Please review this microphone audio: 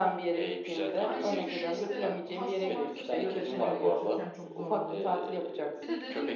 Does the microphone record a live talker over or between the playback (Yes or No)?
Yes